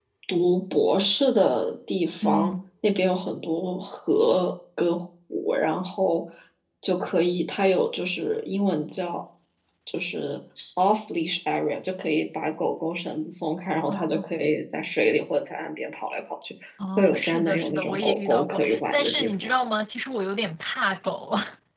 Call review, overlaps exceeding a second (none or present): present